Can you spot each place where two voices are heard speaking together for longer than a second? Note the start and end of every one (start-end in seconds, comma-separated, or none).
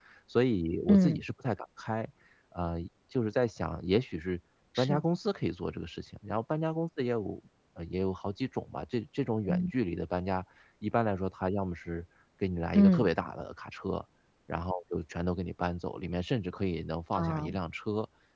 none